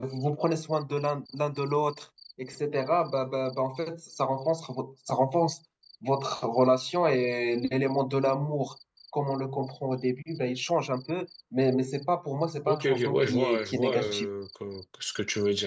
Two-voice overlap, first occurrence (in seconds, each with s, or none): 12.7 s